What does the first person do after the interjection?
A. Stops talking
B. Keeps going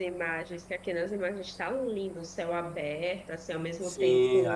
A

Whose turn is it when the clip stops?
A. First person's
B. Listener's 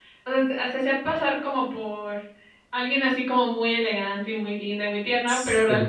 A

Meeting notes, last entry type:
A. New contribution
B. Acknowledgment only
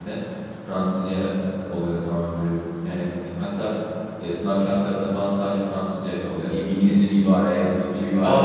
A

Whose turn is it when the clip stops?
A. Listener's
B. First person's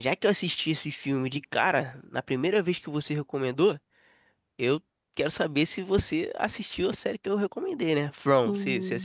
A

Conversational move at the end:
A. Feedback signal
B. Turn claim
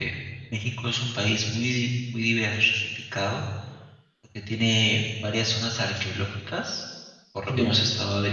A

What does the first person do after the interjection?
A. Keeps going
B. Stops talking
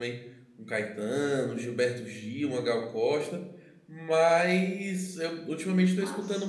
A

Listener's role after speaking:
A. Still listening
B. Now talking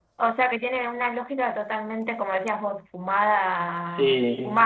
A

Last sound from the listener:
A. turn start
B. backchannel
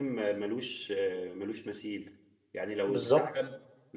B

